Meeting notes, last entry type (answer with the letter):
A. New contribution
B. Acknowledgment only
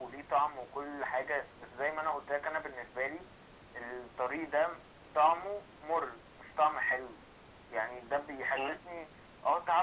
B